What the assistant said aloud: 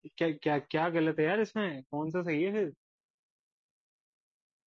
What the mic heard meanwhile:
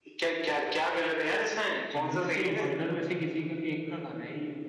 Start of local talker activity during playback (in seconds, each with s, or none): 1.9 s